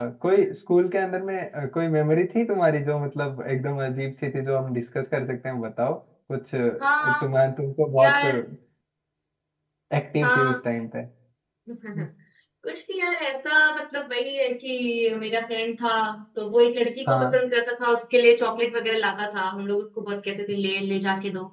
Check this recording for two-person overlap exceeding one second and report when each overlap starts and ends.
none

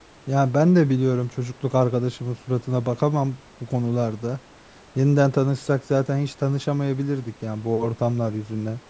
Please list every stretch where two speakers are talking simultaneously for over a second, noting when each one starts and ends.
none

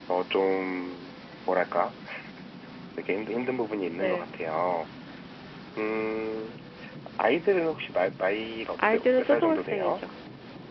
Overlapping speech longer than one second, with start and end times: 8.8-10.0

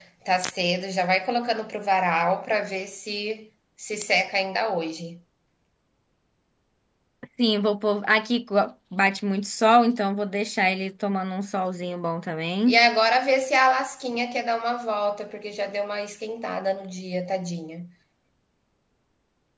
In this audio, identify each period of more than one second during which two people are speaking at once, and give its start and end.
none

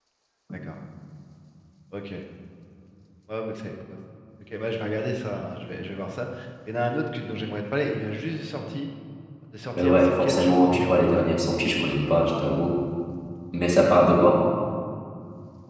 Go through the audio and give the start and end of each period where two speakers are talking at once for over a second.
9.8-11.1

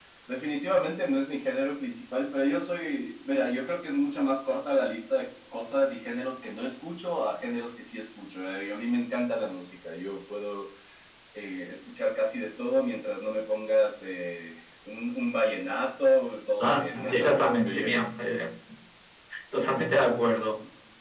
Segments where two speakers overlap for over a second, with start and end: 16.6-18.0

